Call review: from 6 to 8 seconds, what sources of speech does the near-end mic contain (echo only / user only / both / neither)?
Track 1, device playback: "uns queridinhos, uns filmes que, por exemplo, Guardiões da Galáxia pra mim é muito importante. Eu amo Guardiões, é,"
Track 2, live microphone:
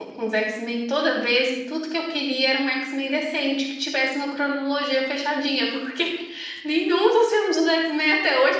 user only